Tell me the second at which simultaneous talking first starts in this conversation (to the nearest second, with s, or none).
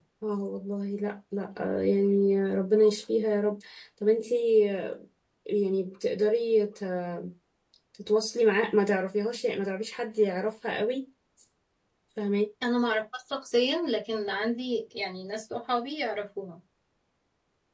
none